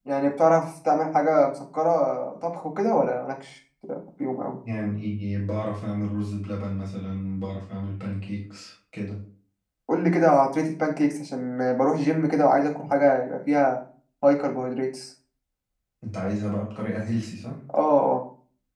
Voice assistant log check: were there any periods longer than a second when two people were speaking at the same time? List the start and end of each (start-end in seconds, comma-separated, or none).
none